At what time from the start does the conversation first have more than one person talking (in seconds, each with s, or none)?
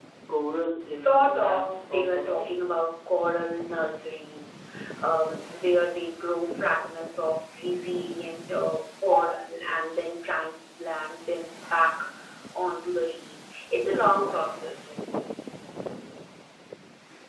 0.9 s